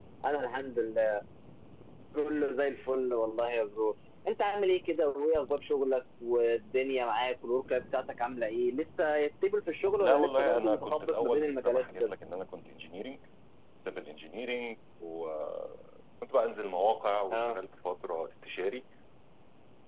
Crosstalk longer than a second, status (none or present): present